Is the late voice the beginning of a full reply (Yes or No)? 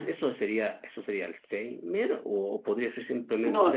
No